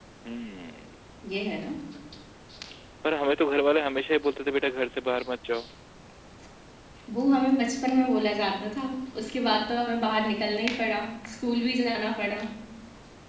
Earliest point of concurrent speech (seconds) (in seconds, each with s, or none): none